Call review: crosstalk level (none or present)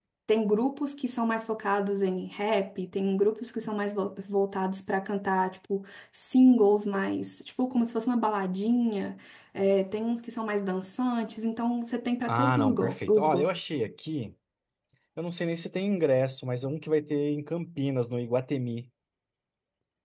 present